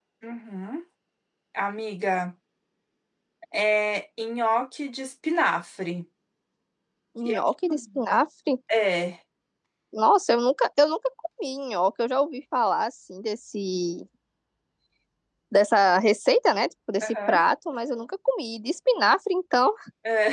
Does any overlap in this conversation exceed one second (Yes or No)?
No